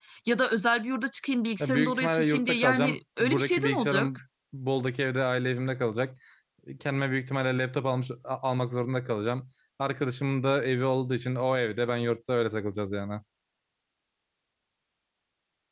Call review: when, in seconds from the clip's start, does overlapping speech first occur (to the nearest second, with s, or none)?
2 s